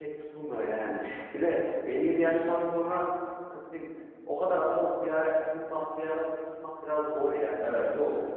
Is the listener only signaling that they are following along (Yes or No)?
No